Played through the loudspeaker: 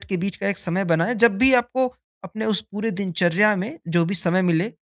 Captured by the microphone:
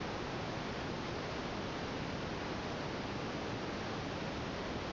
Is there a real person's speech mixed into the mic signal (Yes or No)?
No